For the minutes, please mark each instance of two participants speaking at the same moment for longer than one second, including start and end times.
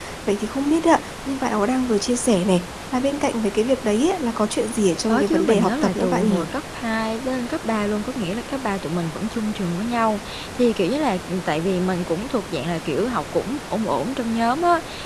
5.1-6.5

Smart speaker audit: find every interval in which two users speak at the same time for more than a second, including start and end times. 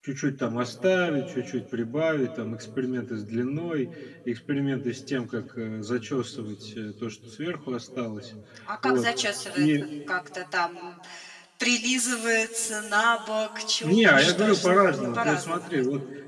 13.8-15.7

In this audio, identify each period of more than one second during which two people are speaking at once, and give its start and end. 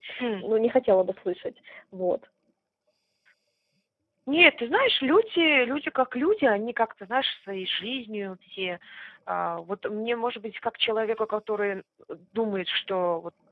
none

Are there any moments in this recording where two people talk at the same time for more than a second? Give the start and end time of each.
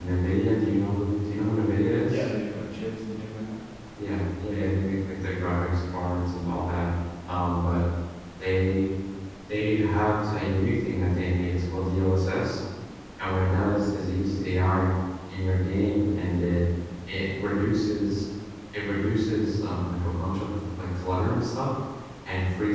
none

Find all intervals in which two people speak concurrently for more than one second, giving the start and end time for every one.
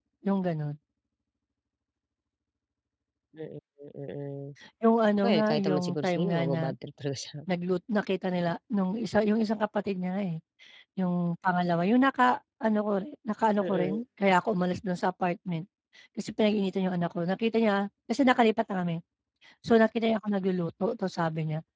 5.2-6.6

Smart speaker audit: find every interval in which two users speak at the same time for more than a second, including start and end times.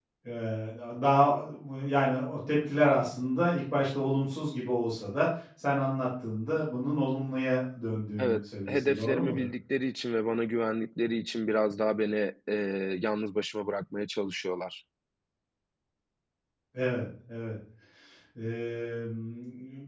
8.2-9.5

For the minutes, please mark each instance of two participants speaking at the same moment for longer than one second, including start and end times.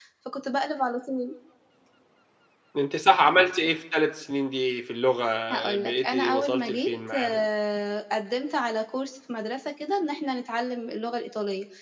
5.8-7.4

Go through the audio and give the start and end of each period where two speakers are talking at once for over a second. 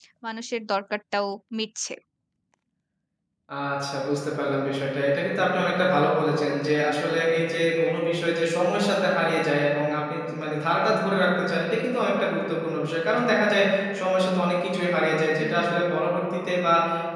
none

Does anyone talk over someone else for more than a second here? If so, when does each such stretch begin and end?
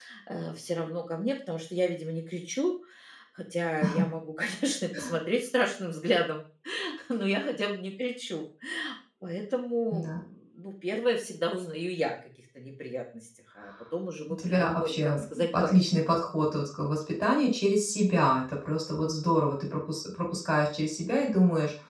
14.3-15.7

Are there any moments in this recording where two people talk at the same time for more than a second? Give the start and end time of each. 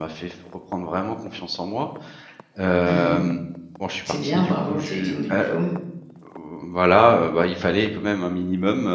4.0-5.5

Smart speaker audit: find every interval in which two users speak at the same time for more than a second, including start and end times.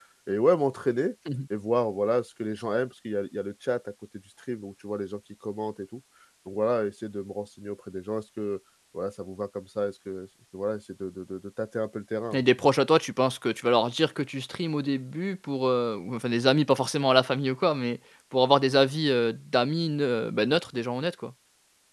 none

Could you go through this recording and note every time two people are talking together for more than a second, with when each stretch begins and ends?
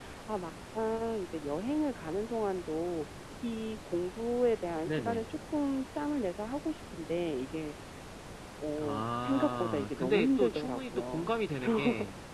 8.8-11.3

